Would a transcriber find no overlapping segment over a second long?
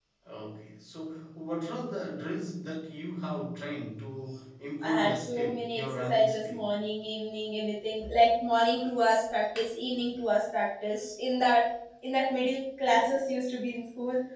No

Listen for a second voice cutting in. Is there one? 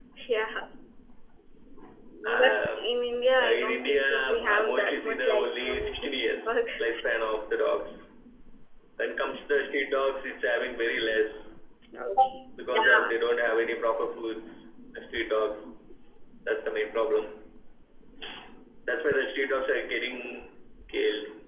Yes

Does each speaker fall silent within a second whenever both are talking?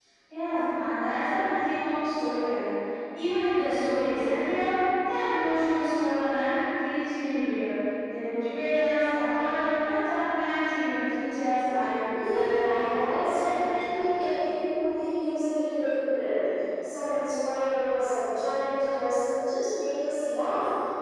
No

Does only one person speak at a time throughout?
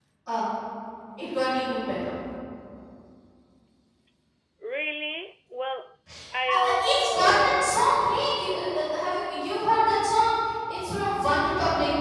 No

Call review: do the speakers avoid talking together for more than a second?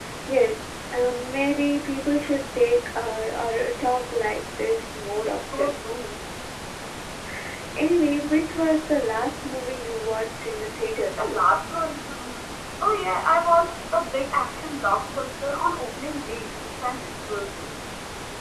Yes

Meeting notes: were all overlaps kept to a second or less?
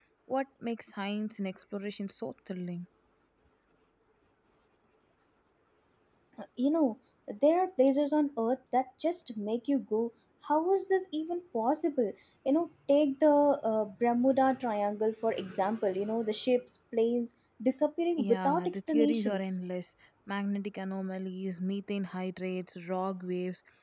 No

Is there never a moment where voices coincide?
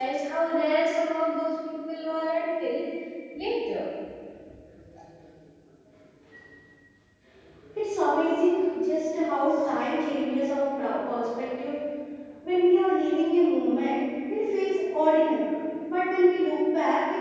Yes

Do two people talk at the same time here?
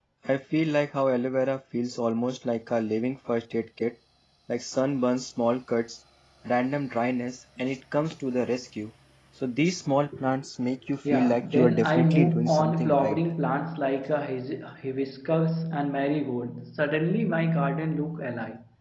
Yes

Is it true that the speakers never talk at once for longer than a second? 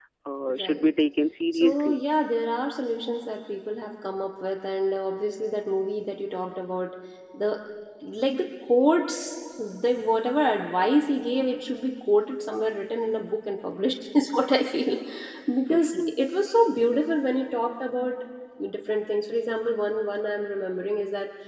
Yes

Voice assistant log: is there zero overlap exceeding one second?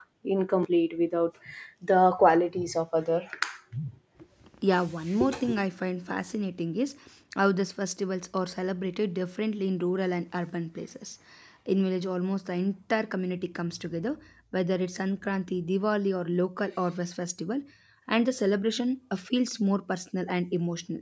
Yes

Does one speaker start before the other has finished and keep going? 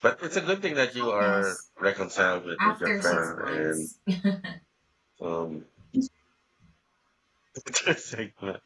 Yes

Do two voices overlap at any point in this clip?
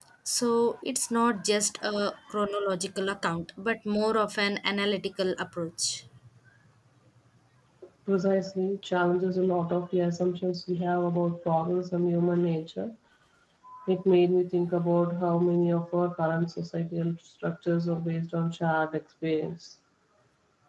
No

